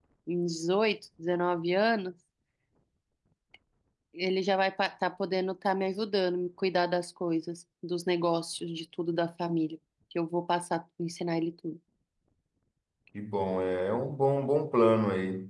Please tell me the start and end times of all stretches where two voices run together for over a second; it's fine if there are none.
none

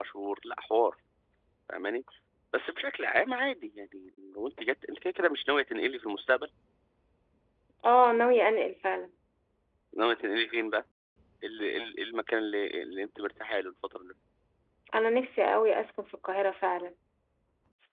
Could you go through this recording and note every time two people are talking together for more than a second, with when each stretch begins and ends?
none

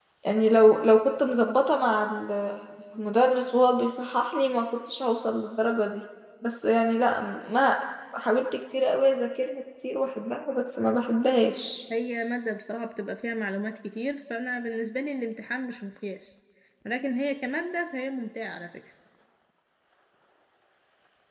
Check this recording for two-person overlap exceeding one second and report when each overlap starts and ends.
none

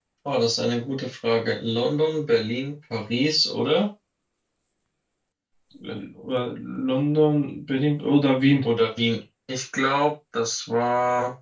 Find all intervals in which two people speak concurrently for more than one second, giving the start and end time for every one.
none

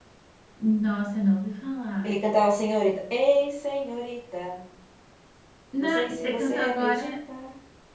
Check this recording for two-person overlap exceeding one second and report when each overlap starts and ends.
5.8-7.2

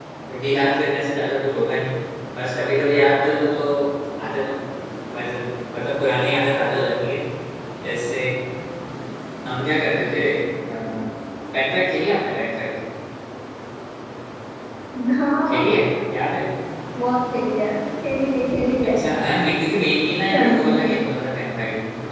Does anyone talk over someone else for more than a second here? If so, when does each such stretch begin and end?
none

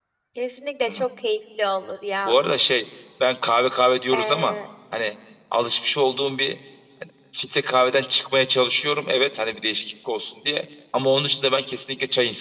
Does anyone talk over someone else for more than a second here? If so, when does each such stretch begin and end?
none

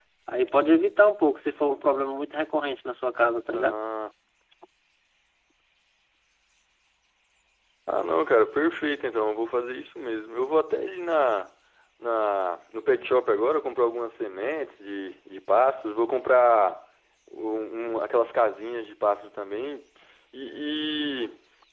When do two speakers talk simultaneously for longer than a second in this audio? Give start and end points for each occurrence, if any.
none

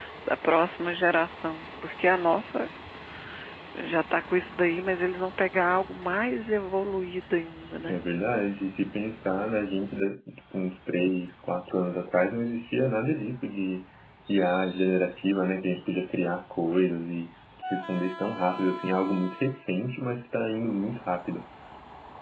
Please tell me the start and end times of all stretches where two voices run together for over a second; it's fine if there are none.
none

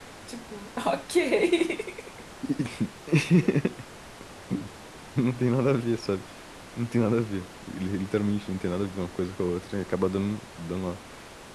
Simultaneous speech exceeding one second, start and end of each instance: none

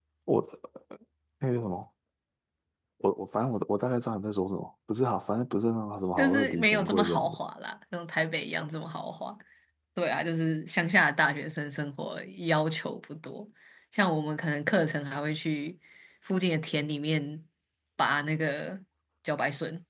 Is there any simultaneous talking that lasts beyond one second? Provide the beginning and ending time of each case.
6.2-7.4

